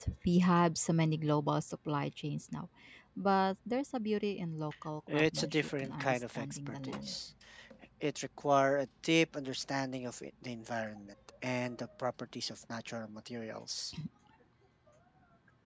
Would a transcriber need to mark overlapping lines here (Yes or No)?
Yes